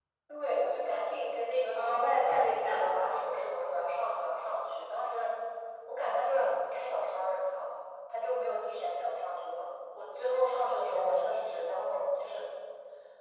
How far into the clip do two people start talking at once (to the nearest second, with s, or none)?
2 s